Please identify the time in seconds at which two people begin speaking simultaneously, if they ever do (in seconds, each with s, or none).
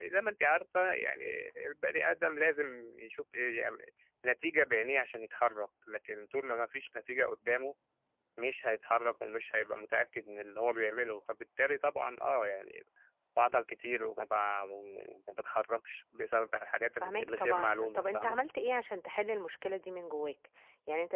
17.0 s